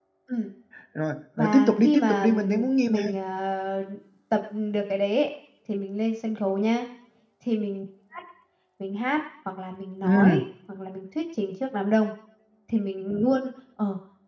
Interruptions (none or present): present